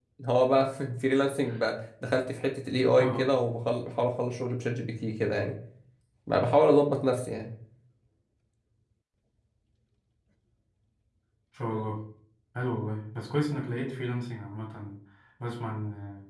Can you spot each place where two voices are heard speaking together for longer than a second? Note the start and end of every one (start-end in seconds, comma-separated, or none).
none